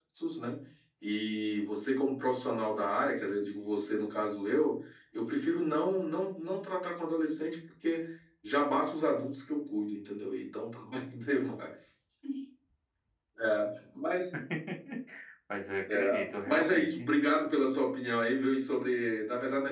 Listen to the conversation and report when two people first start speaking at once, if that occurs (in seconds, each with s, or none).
15.9 s